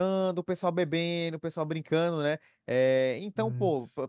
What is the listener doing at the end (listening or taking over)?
listening